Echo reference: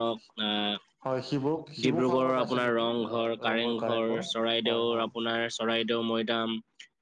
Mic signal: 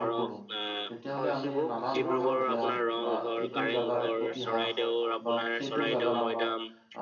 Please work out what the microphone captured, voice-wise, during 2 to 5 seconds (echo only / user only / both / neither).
both